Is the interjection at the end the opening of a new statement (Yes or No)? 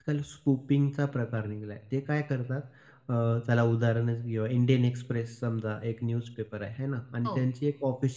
No